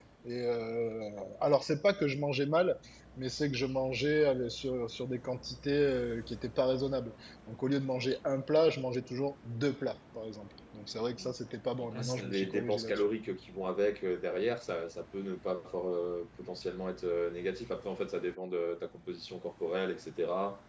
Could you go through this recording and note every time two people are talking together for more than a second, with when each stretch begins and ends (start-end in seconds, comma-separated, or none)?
11.8-13.1